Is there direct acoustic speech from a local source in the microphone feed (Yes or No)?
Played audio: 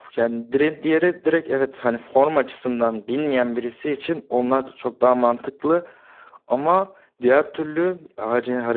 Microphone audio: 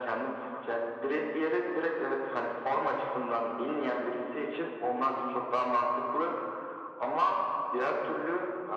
No